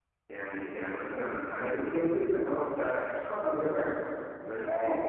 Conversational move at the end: listening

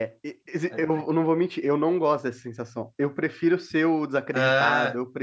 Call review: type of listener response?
listening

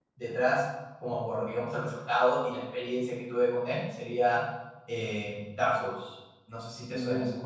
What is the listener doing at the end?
taking over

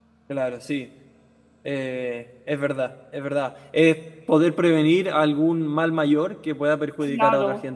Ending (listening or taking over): taking over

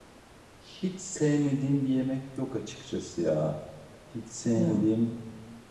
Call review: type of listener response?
listening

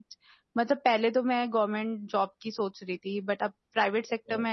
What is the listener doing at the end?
listening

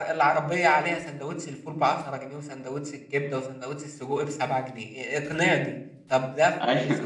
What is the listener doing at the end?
listening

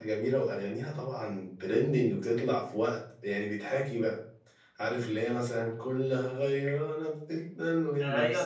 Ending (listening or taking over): taking over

